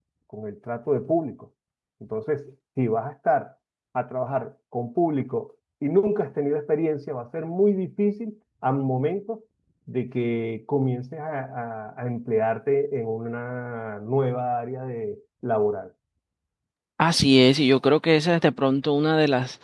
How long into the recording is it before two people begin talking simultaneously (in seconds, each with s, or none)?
none